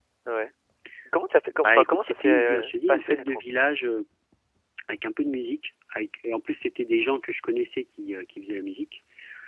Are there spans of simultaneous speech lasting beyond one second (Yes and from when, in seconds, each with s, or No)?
Yes, from 1.6 s